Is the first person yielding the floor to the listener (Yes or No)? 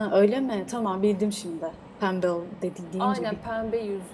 Yes